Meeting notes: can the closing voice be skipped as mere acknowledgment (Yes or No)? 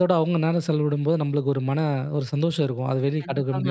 No